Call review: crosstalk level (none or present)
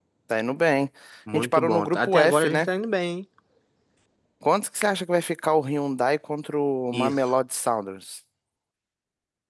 present